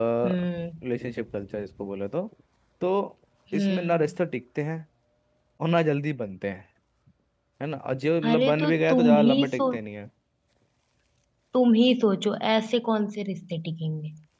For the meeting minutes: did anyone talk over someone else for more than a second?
Yes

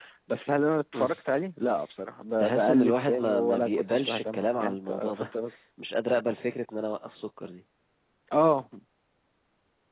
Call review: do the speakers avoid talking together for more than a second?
No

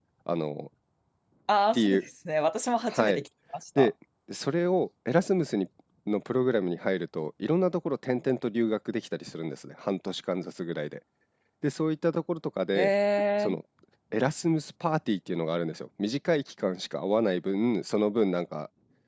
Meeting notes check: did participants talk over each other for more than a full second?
No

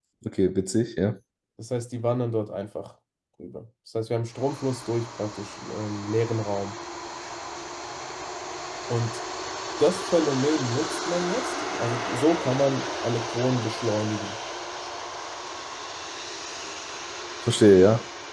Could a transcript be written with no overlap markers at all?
Yes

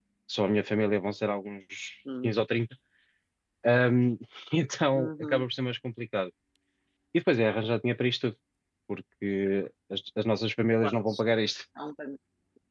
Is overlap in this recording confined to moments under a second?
Yes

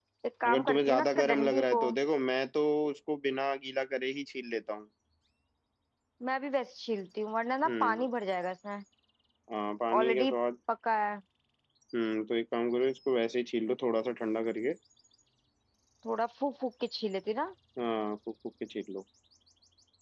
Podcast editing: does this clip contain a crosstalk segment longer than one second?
Yes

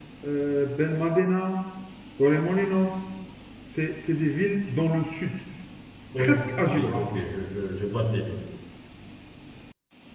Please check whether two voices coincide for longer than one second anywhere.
No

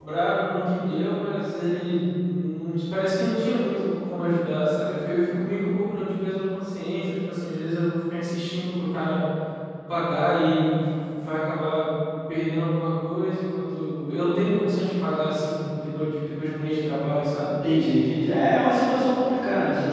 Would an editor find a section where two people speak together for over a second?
No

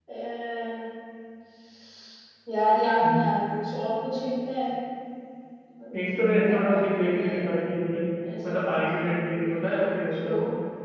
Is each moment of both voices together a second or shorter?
No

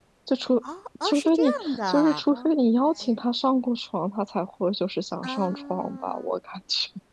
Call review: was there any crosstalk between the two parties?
Yes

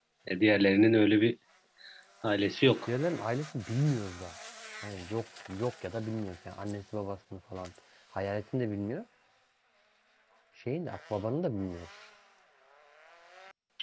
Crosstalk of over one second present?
No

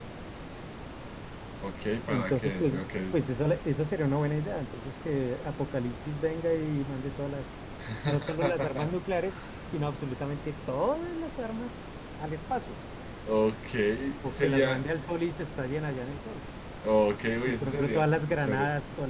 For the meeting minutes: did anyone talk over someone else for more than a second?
Yes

